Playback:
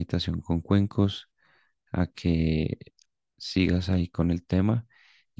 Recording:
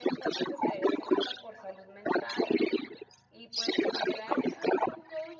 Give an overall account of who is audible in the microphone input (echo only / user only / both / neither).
both